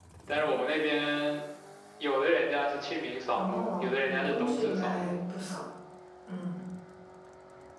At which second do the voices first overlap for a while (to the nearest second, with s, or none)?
3 s